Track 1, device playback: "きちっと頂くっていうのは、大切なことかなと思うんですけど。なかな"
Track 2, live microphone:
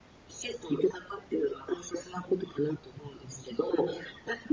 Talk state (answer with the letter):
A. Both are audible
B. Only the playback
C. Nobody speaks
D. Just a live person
B